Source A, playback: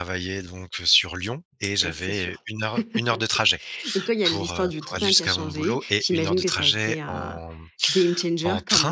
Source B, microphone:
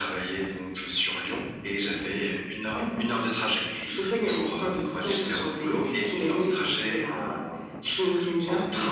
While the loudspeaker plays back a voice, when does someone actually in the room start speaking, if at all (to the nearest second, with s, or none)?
none